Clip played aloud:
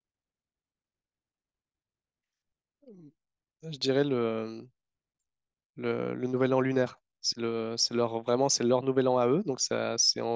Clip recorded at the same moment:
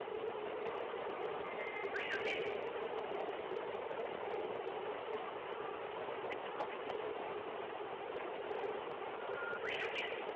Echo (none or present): none